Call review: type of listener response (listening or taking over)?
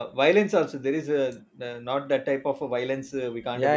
taking over